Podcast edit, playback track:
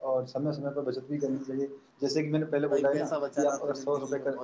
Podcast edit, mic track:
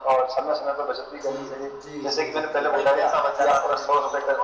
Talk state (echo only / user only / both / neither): both